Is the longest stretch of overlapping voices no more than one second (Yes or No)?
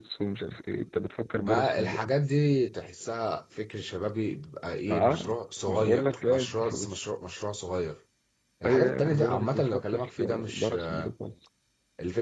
No